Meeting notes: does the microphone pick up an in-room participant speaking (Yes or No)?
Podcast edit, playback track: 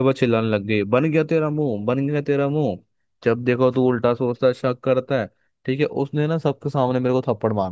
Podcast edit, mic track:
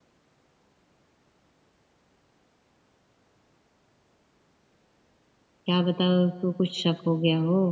Yes